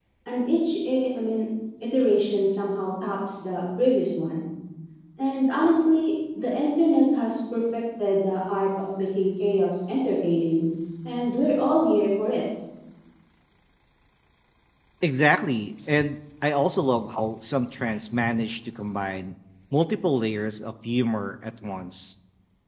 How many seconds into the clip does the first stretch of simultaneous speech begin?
none

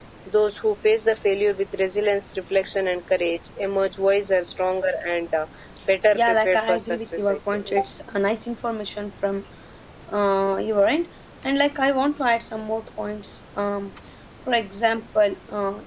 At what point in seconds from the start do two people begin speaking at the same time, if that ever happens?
6 s

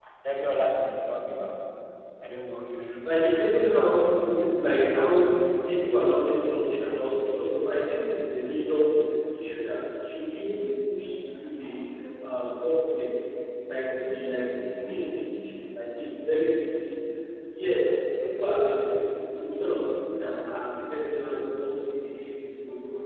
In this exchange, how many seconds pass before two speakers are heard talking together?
3 s

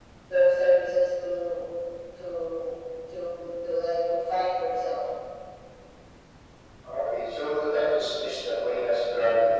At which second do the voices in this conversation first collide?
none

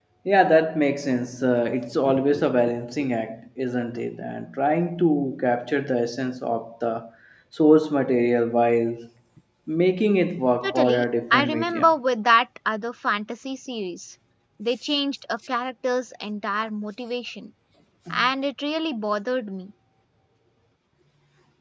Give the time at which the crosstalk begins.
11 s

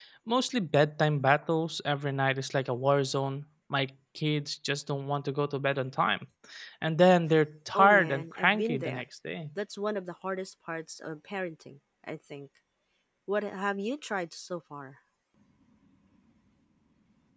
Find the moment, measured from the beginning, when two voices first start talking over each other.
8 s

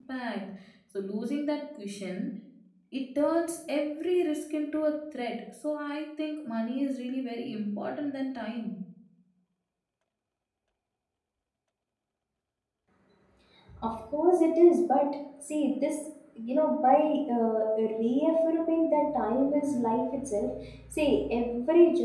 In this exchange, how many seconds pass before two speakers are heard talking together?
none

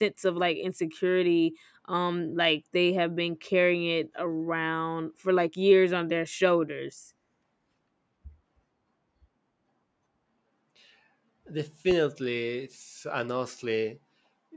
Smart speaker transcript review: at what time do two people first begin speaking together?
none

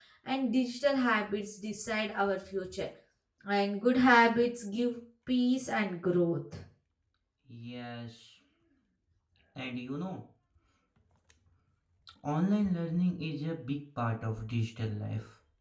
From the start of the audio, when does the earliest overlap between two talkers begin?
none

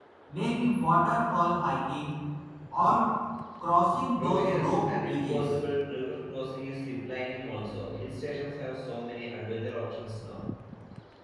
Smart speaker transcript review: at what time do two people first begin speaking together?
4 s

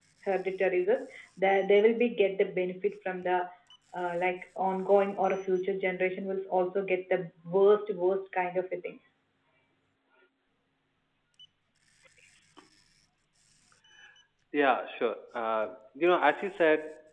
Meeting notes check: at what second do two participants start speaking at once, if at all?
none

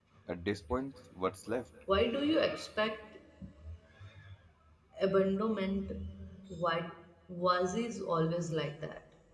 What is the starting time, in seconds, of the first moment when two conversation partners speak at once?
none

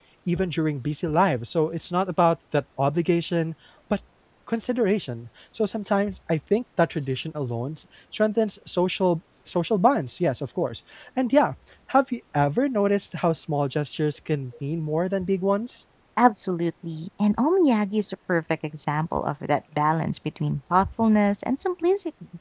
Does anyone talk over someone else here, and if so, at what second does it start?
none

